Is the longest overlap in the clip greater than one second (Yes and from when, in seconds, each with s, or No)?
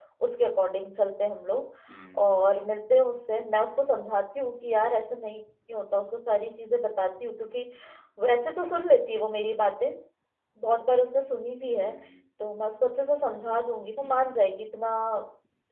No